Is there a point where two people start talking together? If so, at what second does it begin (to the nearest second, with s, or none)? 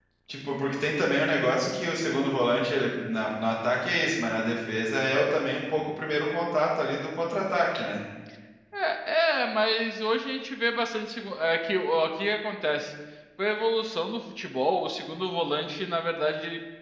none